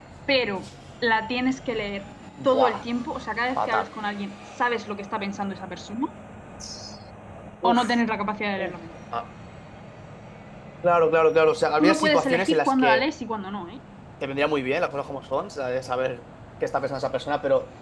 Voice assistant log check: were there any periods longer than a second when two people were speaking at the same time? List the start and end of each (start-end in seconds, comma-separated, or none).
11.8-13.1